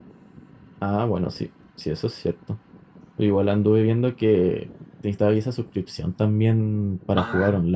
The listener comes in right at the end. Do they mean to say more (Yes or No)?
Yes